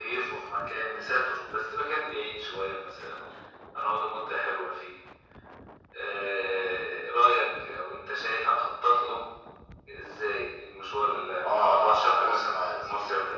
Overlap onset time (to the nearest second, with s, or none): 11 s